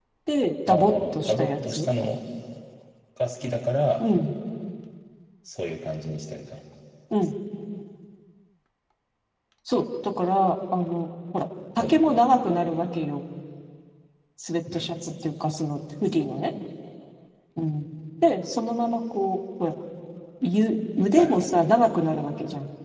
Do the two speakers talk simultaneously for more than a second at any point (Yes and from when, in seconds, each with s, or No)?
Yes, from 0.7 s